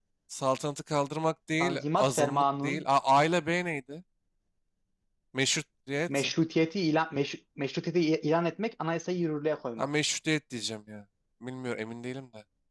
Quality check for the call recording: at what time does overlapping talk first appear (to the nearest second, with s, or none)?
2 s